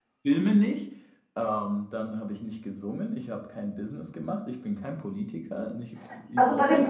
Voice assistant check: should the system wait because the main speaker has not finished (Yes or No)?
No